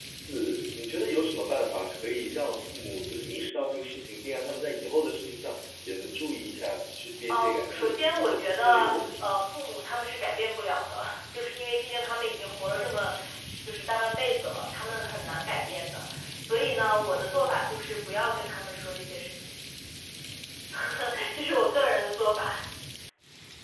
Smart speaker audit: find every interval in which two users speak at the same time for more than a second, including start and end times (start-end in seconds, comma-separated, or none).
7.3-9.3